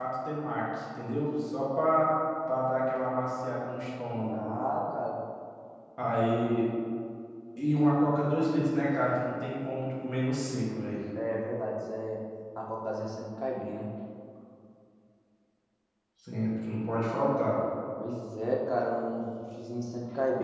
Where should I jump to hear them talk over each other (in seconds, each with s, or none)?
none